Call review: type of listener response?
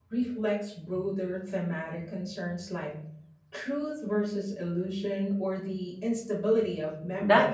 taking over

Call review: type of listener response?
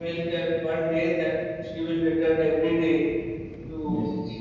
listening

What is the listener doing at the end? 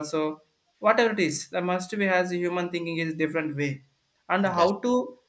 listening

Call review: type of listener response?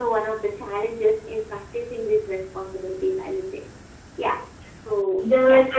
taking over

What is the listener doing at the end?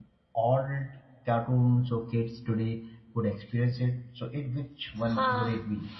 taking over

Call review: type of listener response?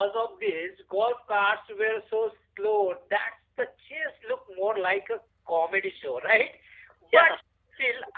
listening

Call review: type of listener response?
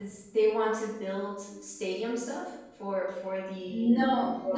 taking over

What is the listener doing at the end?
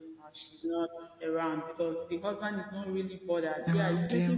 listening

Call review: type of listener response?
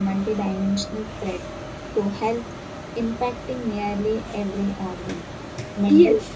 taking over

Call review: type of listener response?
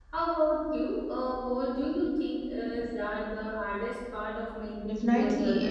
taking over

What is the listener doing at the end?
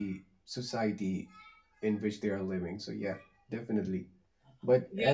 taking over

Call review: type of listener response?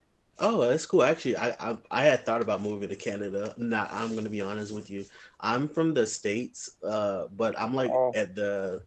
listening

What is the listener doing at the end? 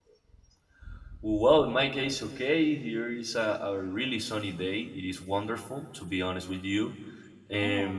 listening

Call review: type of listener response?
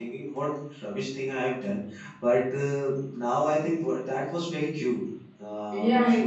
taking over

